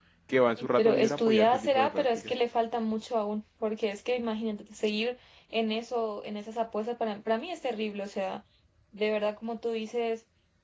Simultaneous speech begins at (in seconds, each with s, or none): 0.6 s